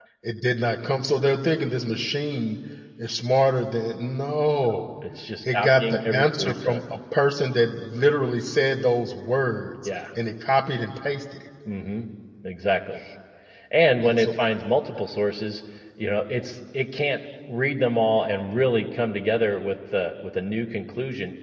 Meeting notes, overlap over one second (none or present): present